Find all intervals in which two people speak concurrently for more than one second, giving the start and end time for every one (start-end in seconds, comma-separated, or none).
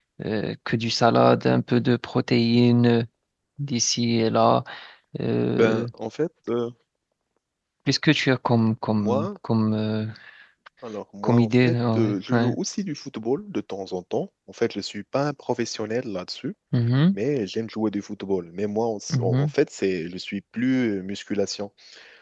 11.2-12.6